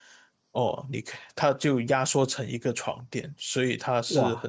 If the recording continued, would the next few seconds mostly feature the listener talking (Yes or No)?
No